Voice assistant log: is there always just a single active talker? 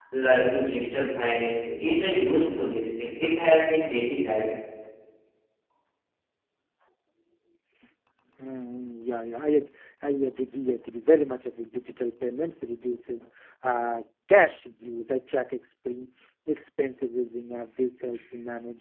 Yes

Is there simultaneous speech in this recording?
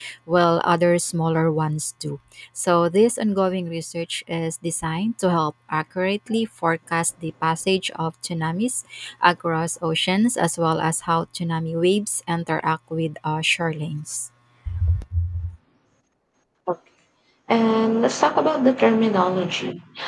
No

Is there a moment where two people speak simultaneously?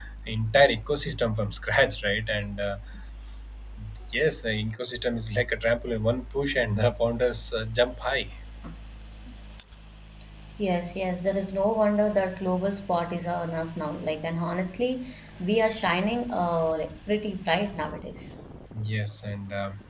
No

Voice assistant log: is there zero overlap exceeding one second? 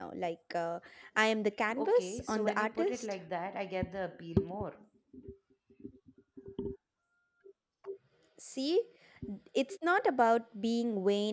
No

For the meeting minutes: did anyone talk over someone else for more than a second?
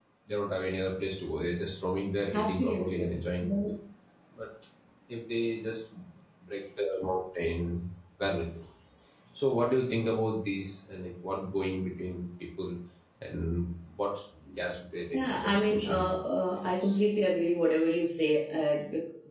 Yes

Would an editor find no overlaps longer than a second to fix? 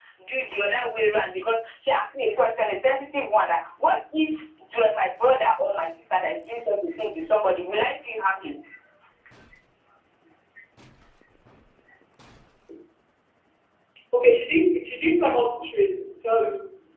Yes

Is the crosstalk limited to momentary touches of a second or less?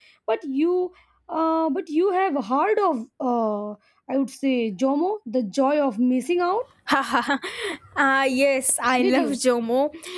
Yes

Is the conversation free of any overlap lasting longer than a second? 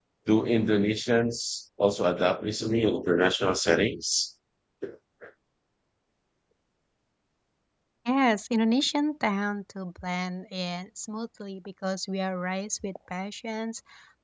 Yes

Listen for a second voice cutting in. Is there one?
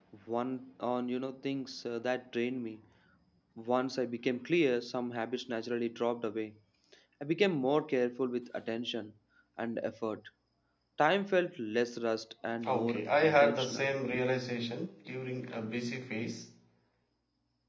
Yes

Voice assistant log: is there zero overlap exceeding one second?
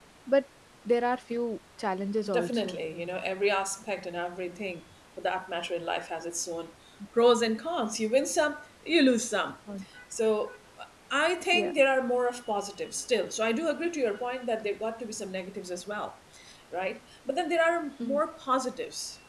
Yes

